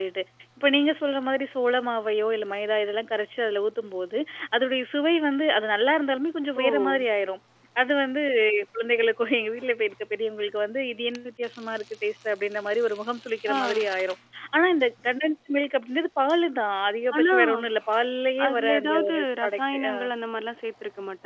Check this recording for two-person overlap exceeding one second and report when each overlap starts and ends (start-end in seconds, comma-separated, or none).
18.5-19.9